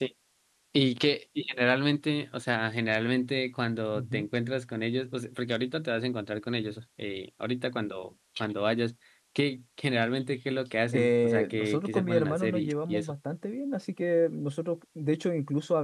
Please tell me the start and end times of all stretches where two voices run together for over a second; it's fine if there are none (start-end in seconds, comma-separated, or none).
11.0-13.1